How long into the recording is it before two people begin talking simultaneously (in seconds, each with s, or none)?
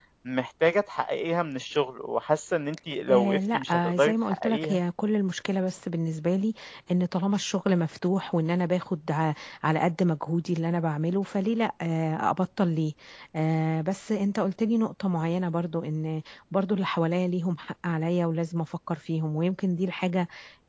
3.1 s